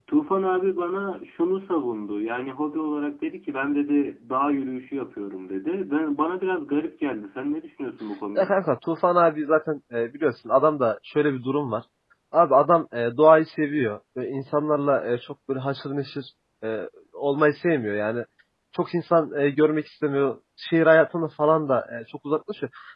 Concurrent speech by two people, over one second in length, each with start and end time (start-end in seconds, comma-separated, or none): none